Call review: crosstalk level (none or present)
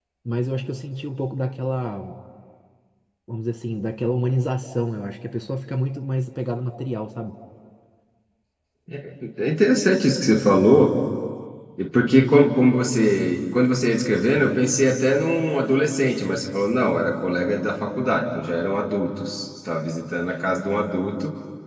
none